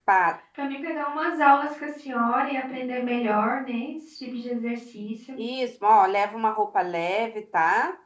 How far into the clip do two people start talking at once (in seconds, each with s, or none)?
none